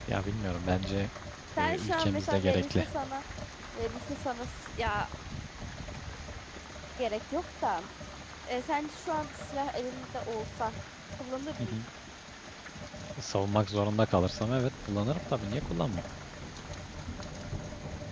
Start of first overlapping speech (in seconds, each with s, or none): 1.6 s